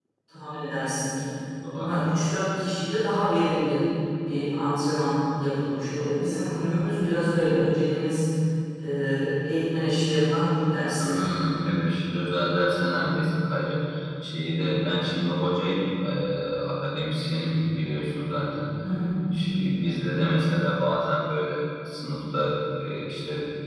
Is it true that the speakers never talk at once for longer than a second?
Yes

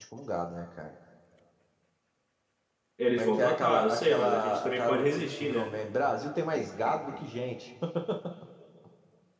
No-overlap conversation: No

